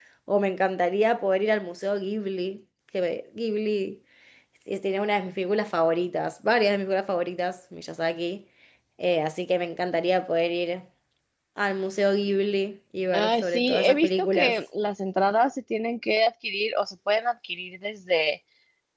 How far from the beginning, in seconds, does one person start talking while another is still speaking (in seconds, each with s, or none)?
13.1 s